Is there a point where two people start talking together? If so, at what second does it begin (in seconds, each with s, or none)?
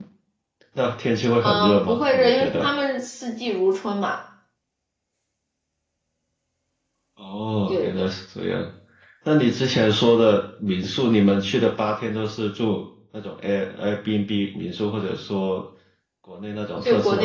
1.4 s